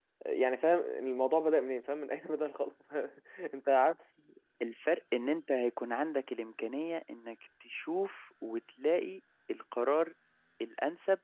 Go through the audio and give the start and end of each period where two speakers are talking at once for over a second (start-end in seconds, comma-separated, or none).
none